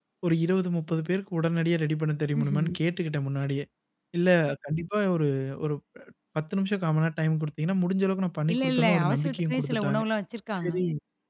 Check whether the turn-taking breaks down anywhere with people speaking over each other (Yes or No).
Yes